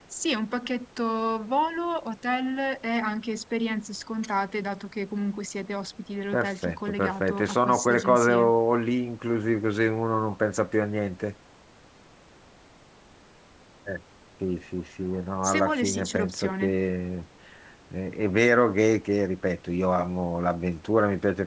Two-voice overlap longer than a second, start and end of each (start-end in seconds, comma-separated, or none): 6.3-8.5, 15.4-16.8